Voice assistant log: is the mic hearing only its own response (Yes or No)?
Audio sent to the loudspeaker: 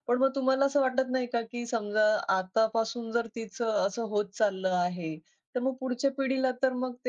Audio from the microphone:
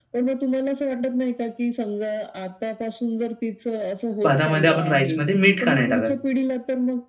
No